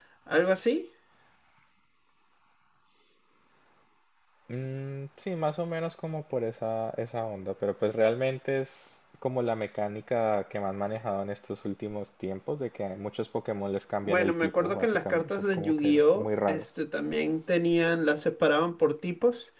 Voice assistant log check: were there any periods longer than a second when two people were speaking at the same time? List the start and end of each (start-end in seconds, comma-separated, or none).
14.0-16.6